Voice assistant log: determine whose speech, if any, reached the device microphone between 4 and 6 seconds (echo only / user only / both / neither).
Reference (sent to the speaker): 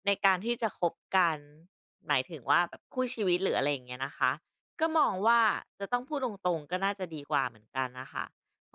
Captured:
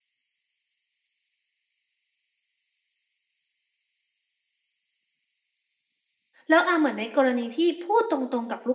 neither